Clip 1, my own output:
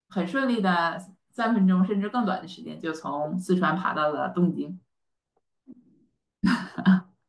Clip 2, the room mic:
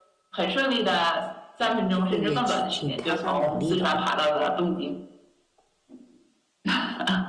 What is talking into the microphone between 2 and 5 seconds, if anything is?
both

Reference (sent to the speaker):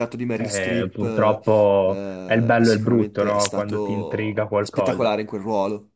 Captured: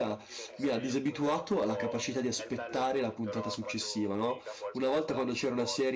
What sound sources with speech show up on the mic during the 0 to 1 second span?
both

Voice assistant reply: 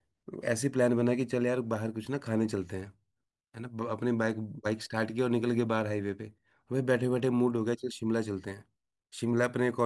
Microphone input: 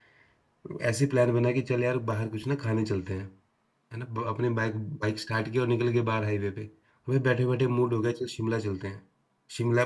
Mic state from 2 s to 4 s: echo only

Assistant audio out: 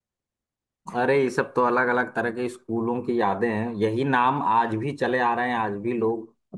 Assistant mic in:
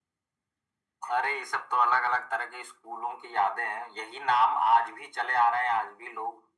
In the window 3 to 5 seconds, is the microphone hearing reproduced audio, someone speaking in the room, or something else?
echo only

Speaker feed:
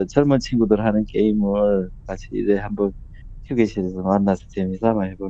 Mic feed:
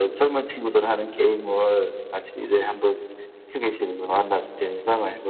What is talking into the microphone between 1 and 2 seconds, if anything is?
echo only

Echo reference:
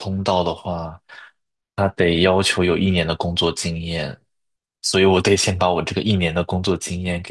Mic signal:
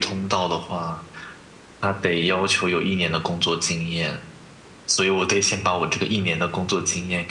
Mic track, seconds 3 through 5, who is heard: echo only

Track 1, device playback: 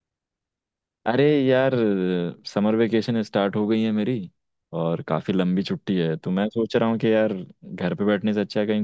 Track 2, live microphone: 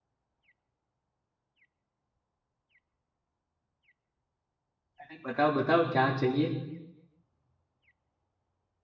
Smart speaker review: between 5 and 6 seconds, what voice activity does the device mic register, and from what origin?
user only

